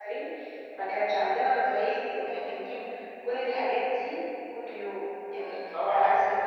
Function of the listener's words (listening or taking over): taking over